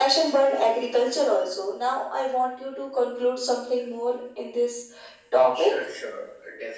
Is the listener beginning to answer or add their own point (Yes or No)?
Yes